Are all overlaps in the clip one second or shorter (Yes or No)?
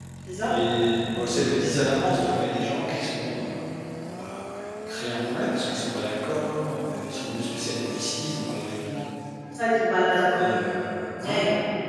Yes